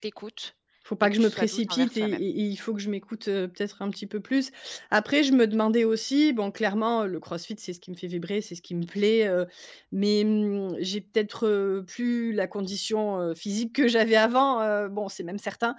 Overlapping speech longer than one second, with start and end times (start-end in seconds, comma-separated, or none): 1.0-2.2